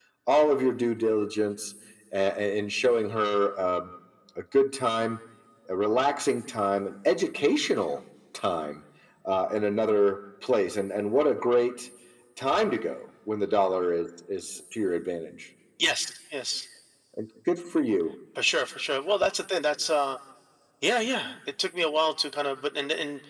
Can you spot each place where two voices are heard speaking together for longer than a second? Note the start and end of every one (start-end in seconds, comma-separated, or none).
none